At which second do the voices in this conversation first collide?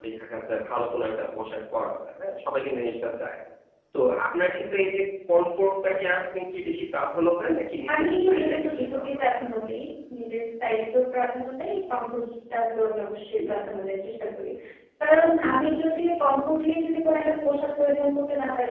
8 s

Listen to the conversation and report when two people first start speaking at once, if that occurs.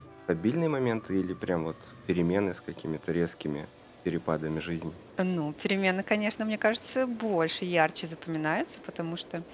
none

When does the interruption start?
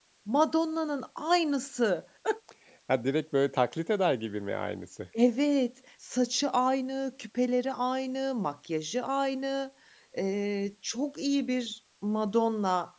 none

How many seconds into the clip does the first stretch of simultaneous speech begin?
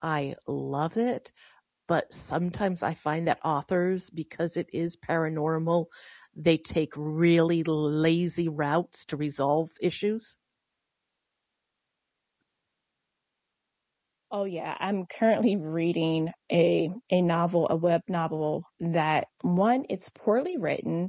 none

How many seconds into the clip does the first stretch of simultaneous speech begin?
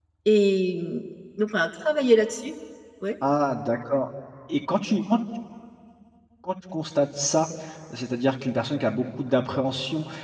none

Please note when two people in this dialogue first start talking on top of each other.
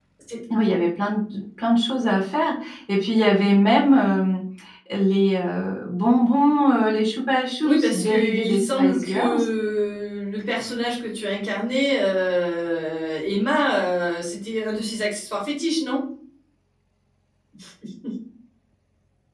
8 s

